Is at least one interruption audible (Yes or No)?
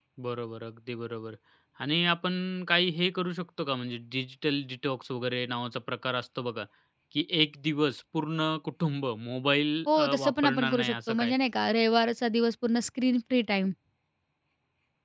Yes